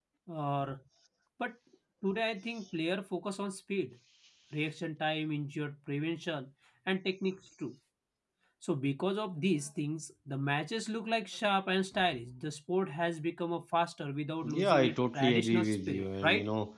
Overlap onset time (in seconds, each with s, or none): 14.4 s